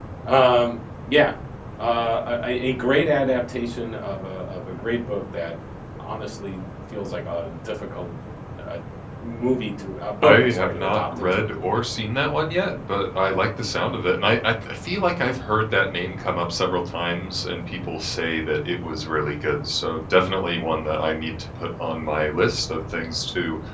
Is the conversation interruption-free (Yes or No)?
No